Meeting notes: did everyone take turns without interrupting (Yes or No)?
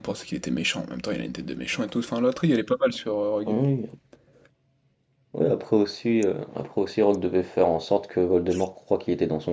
Yes